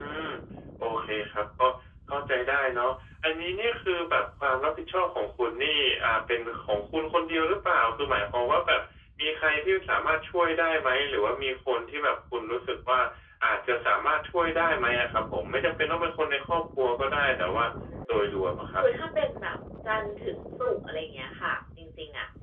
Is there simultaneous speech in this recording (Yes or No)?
No